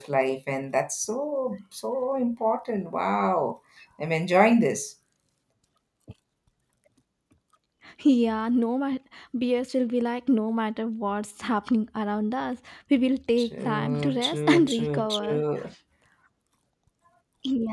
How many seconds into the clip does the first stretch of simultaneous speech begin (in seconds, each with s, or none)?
13.4 s